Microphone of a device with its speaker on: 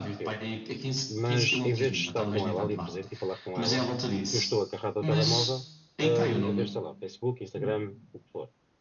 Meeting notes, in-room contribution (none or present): present